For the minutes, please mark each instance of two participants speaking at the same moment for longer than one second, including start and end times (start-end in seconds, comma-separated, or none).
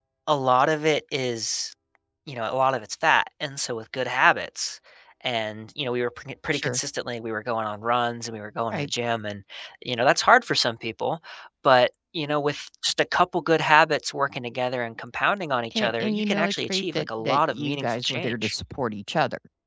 15.8-18.5